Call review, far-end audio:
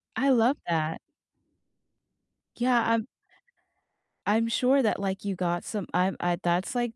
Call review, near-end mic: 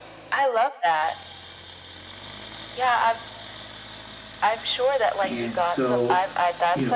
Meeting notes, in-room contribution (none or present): present